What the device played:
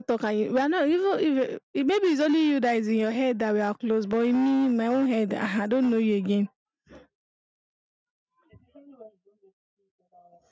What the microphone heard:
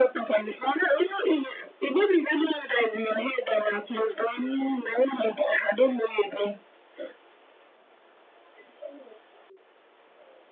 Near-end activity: none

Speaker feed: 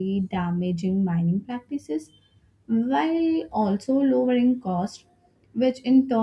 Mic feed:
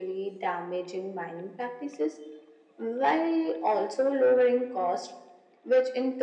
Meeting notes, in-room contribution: none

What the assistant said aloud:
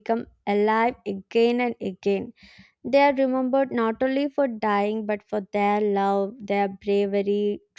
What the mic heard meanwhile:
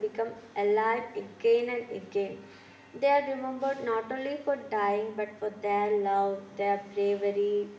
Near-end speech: none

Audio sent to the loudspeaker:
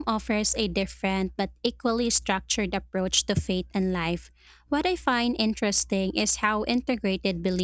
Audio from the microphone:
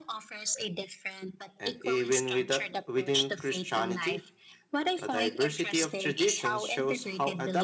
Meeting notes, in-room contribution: present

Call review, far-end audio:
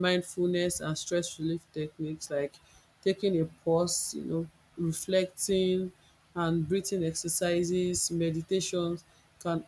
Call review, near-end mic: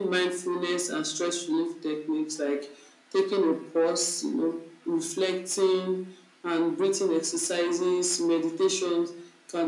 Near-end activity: none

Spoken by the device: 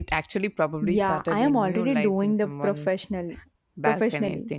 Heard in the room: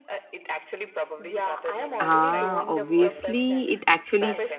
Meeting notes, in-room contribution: present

